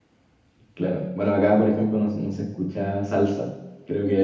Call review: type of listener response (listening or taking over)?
taking over